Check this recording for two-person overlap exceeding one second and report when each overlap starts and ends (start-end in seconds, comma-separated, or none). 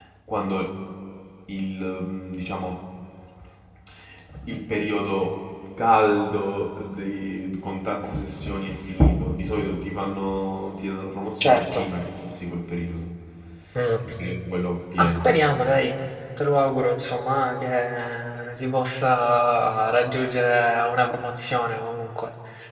none